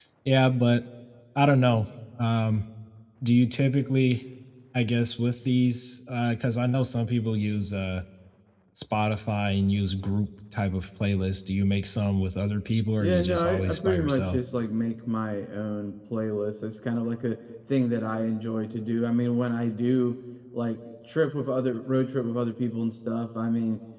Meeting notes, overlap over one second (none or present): present